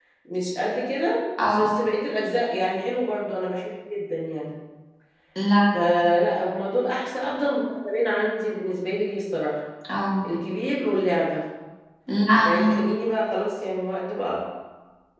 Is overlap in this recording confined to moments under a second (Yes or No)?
Yes